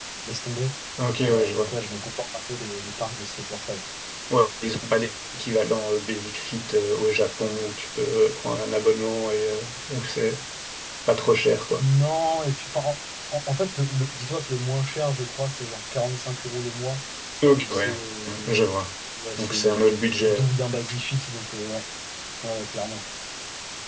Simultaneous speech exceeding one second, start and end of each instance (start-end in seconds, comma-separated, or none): none